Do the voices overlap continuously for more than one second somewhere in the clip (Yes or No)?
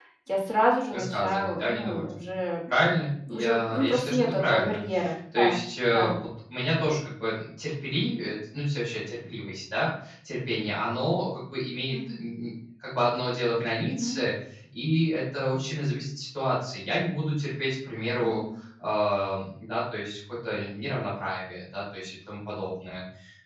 Yes